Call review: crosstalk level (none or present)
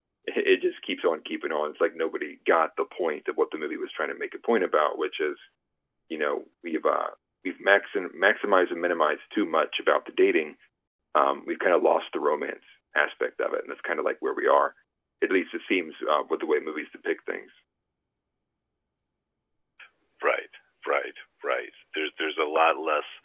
none